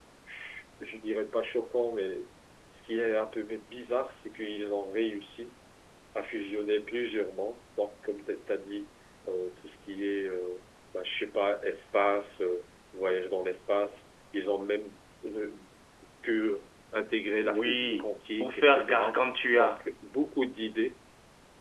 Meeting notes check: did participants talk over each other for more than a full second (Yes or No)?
Yes